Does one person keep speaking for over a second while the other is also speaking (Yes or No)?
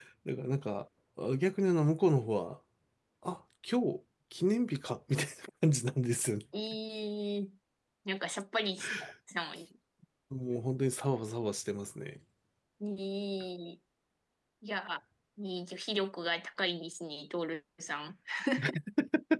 No